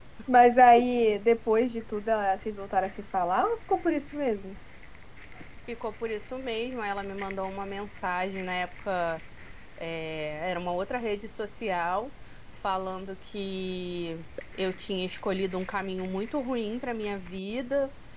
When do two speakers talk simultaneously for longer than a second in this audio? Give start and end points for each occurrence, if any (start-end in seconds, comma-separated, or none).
none